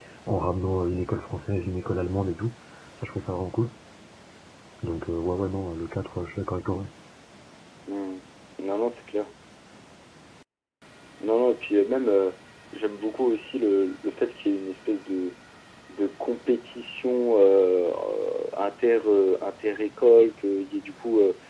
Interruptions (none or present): none